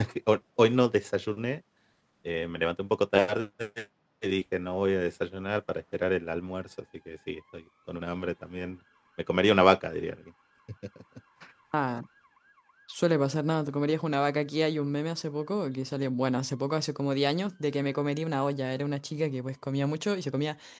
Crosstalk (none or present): none